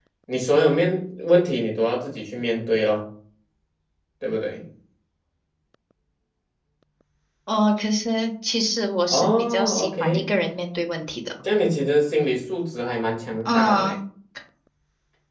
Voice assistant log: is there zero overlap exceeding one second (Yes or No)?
No